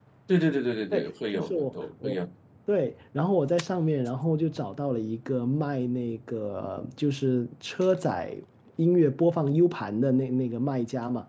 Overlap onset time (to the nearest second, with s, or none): 1 s